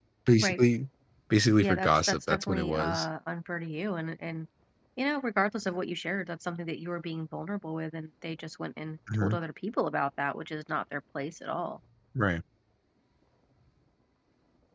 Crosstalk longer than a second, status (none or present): present